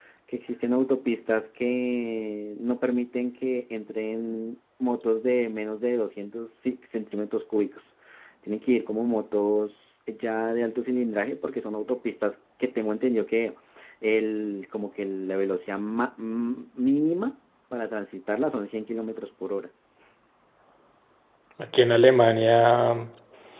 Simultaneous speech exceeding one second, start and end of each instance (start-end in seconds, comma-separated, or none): none